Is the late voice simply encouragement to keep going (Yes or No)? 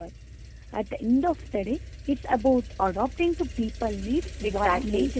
No